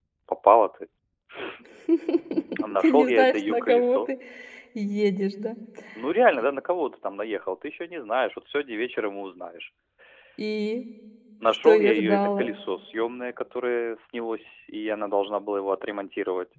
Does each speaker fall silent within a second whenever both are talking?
No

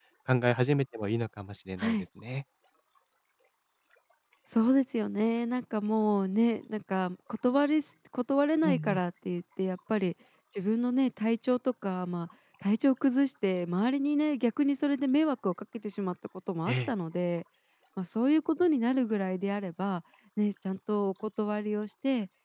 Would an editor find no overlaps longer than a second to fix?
Yes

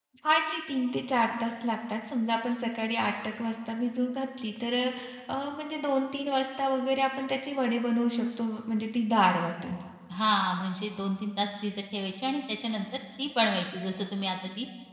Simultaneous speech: No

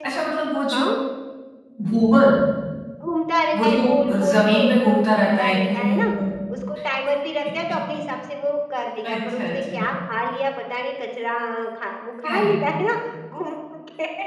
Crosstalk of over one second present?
Yes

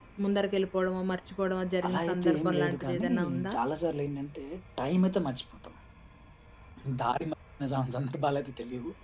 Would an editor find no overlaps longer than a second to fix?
No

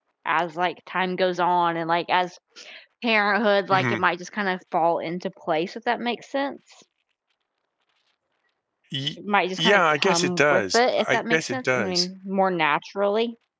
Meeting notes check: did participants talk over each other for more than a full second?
Yes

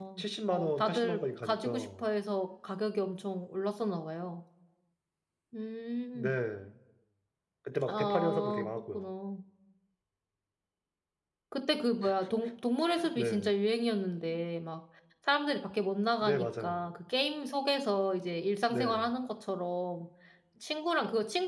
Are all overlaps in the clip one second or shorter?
No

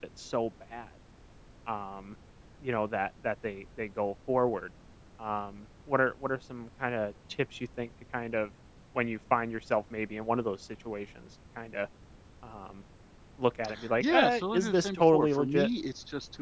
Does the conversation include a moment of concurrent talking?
Yes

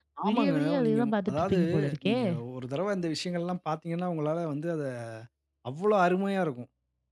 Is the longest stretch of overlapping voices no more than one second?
No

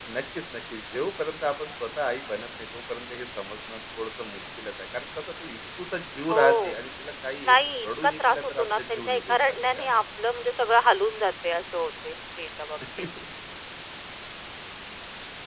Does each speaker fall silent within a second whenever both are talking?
No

